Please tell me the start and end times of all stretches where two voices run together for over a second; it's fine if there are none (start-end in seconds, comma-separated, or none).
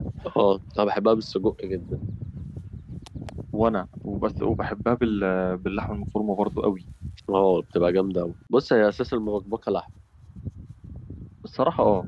none